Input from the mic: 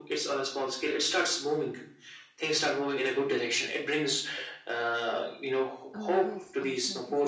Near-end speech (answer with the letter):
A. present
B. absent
A